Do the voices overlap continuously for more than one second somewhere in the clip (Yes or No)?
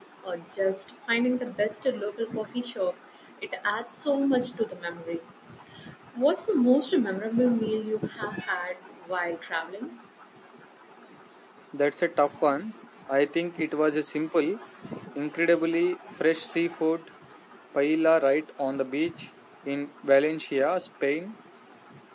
No